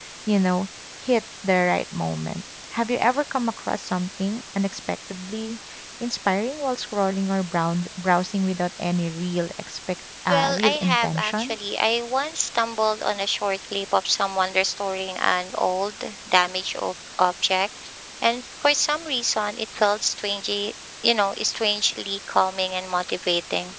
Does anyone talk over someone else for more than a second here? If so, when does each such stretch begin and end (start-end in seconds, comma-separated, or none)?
10.3-11.6